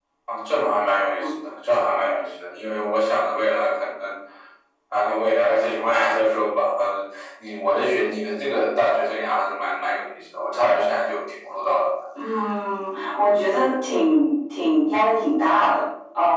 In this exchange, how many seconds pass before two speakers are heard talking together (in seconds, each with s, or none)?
none